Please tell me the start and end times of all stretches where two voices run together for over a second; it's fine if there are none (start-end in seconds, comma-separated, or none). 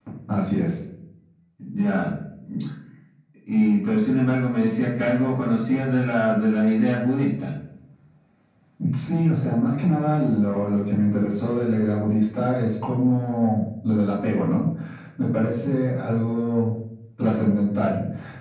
none